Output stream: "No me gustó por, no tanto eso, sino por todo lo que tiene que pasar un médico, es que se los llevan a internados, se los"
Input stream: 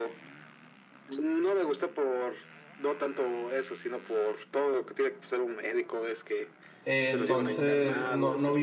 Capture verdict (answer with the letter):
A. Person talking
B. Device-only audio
A